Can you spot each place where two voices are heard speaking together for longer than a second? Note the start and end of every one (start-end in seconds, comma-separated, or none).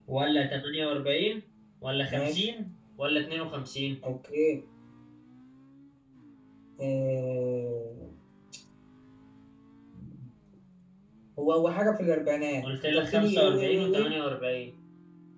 12.6-14.1